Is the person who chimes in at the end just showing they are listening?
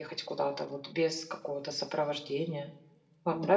No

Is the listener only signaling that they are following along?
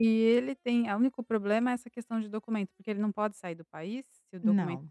No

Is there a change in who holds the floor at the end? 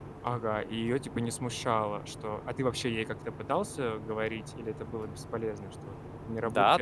Yes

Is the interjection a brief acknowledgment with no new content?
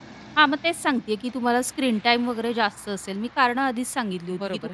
No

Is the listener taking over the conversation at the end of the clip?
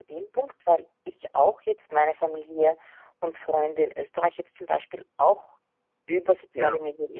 No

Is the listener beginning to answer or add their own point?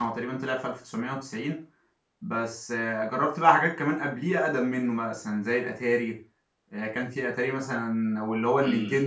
No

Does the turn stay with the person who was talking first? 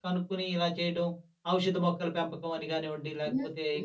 No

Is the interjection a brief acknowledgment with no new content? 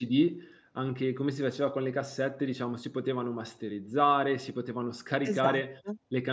Yes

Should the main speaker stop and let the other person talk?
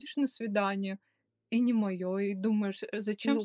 Yes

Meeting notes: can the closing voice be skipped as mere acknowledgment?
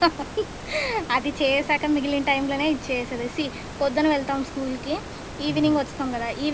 Yes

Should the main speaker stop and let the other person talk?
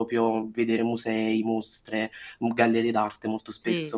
Yes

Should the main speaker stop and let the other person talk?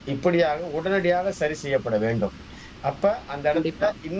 No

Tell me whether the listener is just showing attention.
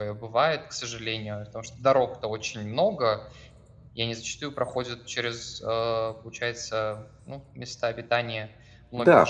No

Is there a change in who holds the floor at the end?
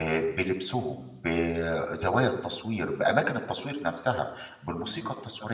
Yes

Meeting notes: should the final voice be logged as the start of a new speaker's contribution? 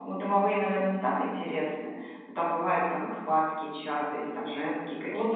Yes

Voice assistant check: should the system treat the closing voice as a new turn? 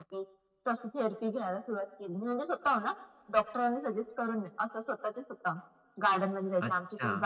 No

